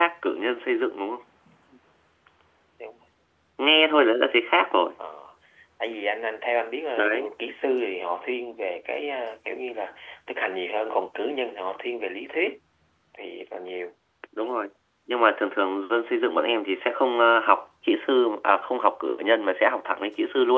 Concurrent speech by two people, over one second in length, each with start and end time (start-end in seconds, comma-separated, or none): none